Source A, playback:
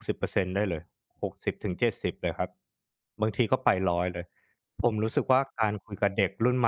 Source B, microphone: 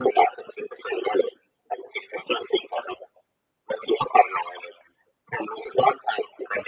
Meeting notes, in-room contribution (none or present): none